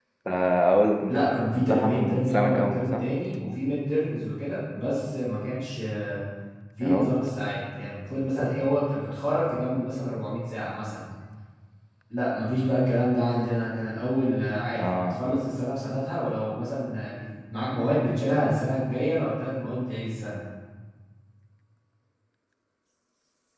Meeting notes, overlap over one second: present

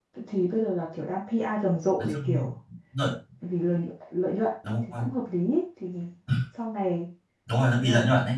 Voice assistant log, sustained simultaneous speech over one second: none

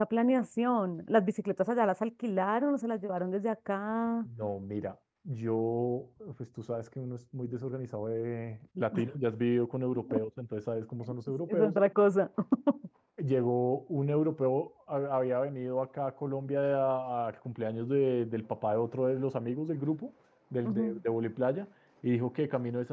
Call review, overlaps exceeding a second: none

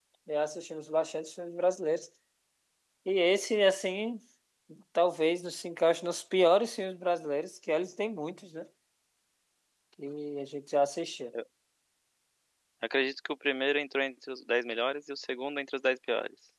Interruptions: none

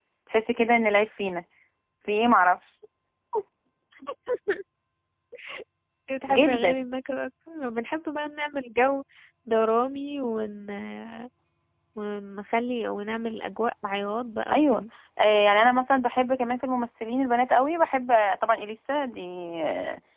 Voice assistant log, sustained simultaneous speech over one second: none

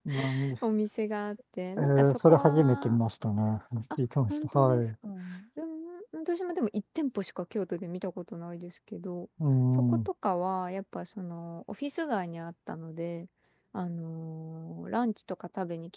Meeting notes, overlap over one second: present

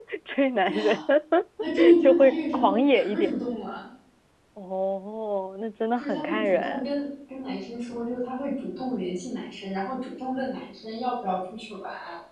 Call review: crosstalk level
present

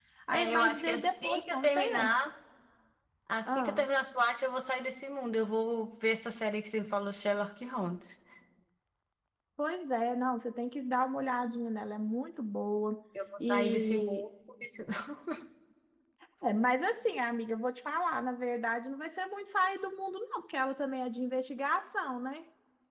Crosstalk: present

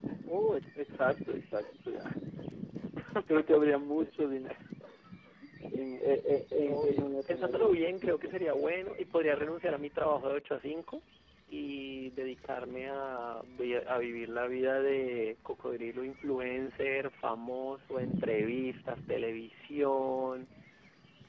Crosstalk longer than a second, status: present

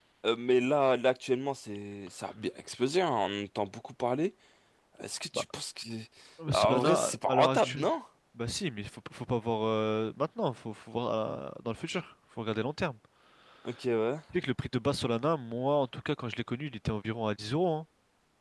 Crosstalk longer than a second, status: present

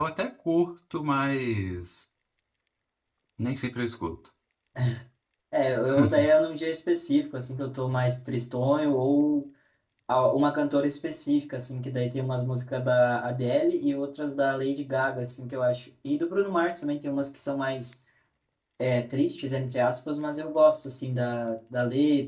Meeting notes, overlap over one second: none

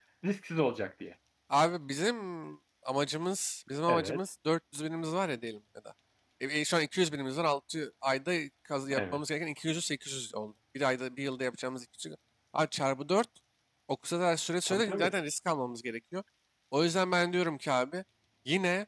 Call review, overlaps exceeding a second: none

